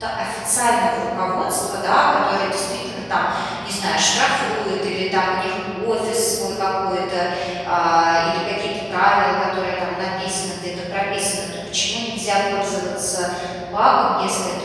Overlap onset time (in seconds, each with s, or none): none